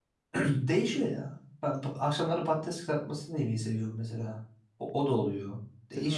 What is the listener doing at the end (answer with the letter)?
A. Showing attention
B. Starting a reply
B